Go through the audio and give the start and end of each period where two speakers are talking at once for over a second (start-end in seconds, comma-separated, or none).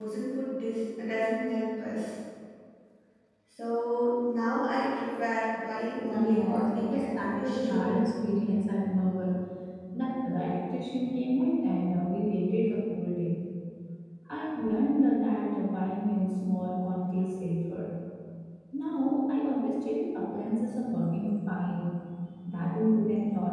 6.1-8.0